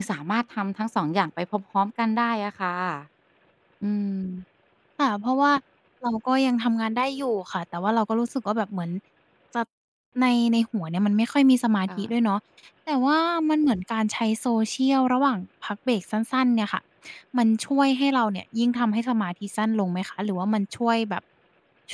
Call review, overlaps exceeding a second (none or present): none